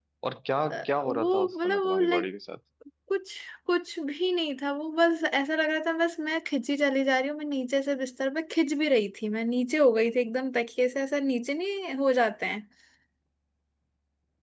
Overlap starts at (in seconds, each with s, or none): 0.7 s